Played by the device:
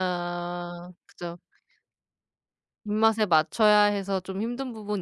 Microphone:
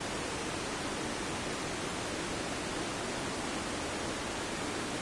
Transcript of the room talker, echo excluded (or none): none